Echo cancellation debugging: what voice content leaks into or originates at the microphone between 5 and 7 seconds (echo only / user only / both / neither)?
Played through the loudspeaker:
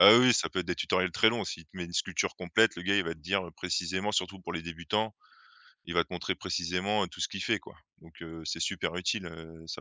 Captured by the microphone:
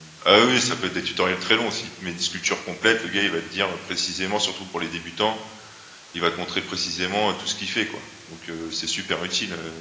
echo only